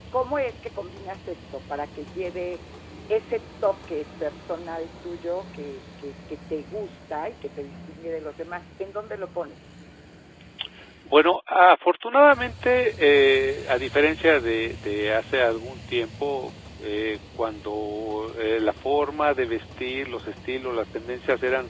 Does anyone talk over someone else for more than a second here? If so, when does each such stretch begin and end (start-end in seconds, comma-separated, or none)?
none